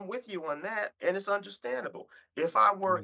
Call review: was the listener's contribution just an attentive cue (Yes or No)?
Yes